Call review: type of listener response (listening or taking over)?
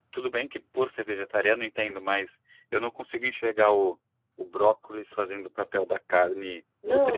taking over